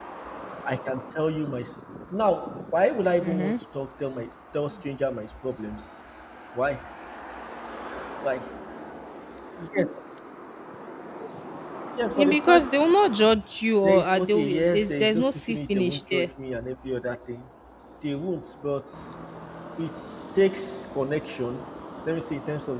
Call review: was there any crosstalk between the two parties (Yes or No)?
Yes